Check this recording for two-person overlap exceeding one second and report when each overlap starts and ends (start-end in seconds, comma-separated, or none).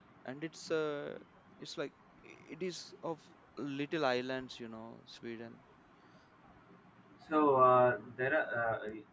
none